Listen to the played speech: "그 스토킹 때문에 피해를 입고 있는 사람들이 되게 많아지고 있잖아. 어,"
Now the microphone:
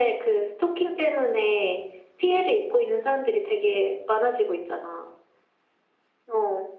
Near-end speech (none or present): none